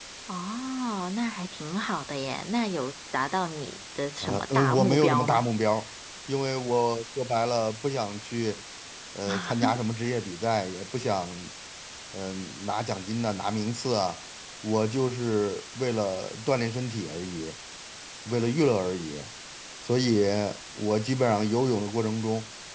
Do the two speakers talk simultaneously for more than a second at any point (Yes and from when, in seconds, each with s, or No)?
Yes, from 4.2 s